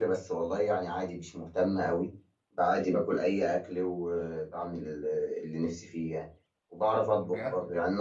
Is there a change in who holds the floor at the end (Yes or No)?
No